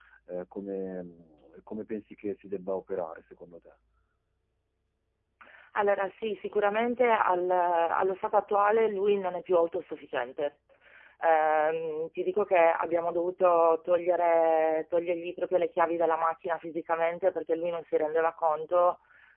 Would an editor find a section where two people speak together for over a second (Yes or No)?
No